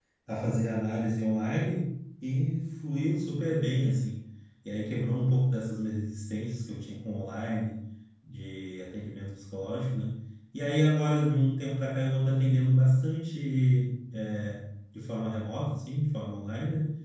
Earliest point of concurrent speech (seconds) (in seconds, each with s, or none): none